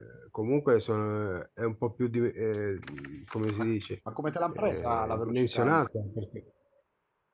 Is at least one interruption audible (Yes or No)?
Yes